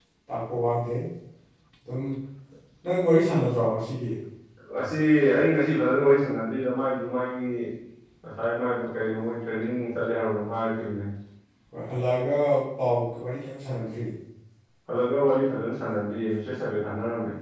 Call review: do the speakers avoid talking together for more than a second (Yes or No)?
Yes